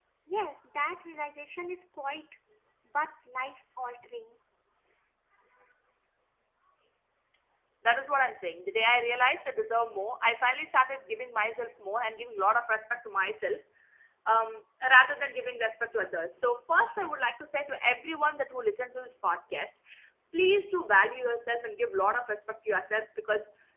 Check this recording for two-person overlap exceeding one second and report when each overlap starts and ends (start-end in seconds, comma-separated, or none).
none